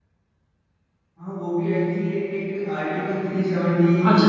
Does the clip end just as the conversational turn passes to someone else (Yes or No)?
Yes